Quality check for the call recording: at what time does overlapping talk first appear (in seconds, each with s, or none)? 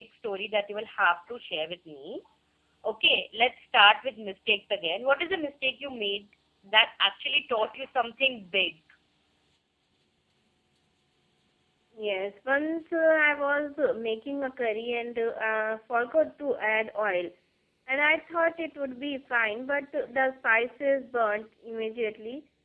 none